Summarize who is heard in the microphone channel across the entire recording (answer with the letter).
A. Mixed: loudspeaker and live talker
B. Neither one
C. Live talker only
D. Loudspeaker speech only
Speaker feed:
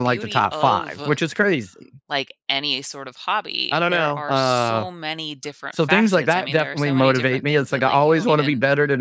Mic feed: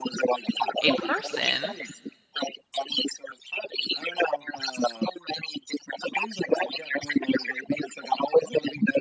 A